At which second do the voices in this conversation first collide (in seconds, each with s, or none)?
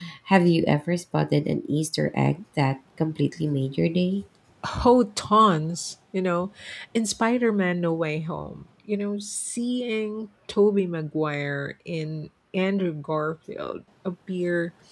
none